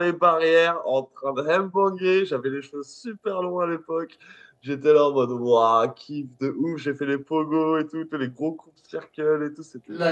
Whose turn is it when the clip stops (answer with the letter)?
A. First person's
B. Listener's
B